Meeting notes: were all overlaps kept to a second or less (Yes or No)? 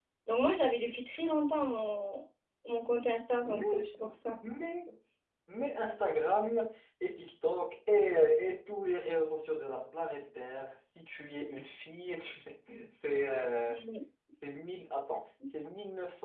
Yes